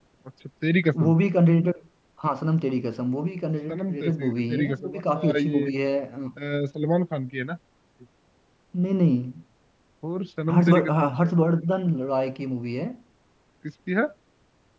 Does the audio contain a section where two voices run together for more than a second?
Yes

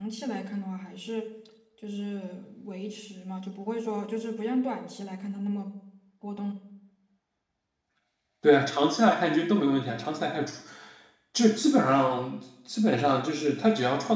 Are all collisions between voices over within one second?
Yes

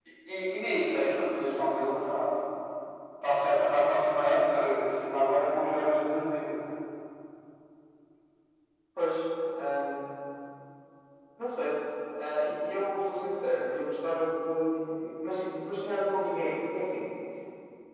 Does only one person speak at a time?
Yes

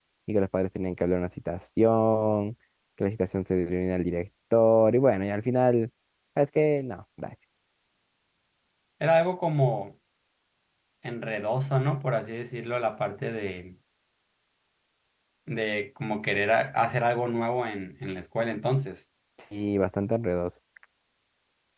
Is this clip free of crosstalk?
Yes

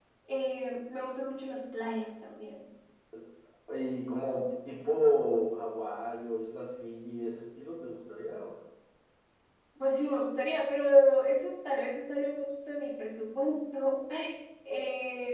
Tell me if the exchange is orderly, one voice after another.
Yes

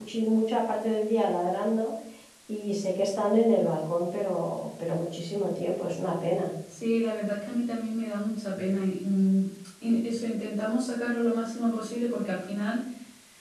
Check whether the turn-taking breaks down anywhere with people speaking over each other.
No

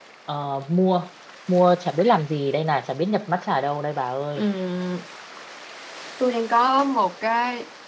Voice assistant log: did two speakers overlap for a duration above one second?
No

